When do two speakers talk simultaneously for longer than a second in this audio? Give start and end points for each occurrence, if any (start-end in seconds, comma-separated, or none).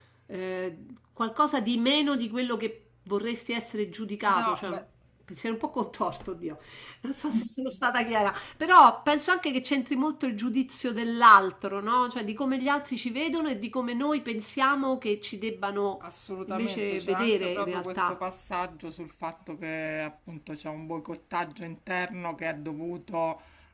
16.5-18.2